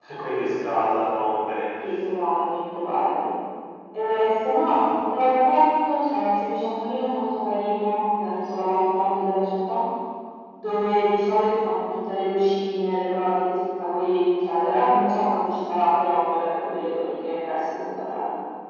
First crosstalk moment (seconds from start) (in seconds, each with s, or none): none